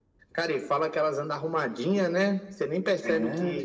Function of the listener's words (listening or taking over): taking over